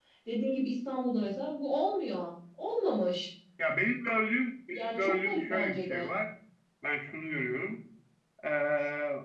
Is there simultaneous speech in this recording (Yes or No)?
Yes